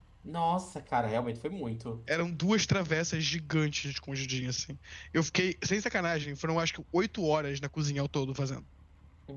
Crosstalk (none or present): none